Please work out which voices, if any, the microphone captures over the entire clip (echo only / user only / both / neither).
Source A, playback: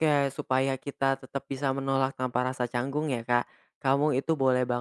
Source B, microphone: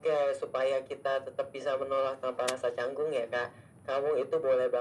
echo only